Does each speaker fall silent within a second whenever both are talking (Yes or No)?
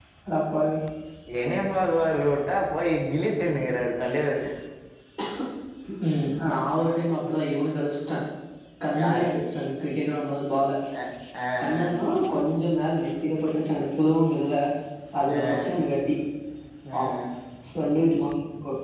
Yes